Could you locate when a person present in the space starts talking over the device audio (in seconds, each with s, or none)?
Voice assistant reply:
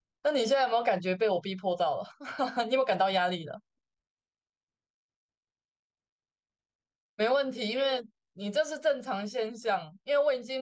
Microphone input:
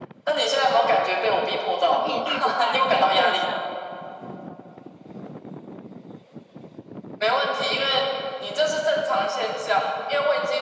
1.8 s